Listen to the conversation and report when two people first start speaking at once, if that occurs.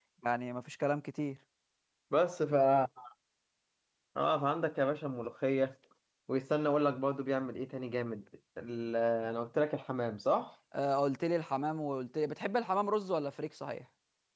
none

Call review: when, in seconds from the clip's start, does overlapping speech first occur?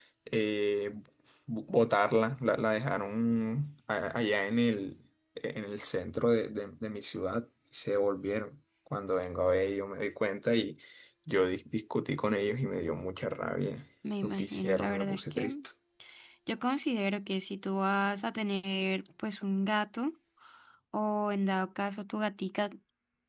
14.2 s

